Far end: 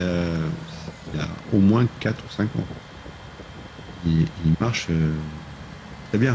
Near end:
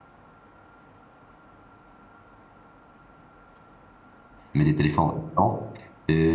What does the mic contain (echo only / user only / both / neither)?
user only